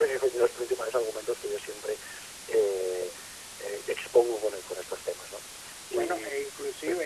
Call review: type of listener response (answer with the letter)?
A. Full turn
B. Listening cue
A